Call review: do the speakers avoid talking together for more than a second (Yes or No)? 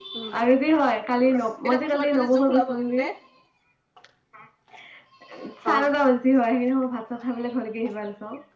No